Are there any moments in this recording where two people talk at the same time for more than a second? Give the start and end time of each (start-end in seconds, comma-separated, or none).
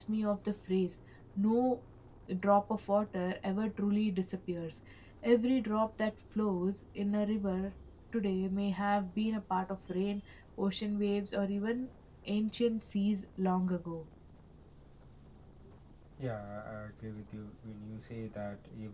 none